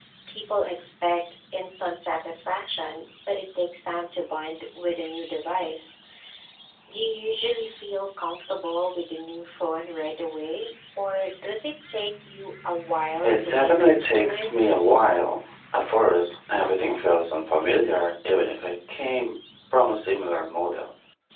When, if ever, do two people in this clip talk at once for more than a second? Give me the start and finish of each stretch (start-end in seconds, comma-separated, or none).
13.2-14.5